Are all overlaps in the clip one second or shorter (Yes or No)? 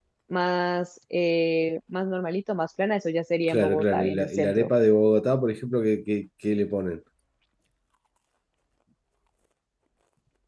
No